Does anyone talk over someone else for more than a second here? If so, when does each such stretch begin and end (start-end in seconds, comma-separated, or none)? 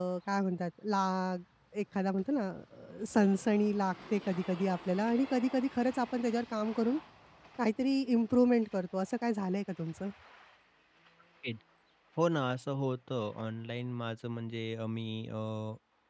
none